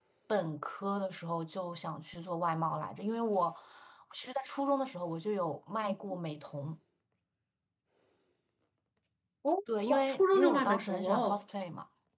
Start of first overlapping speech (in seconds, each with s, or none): 9.9 s